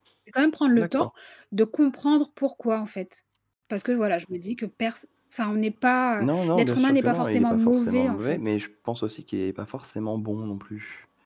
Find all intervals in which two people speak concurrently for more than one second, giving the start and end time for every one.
6.2-8.4

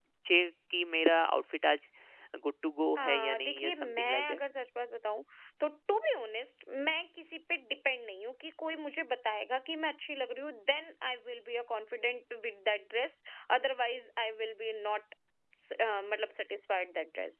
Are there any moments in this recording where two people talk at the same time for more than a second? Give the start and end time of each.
3.0-4.4

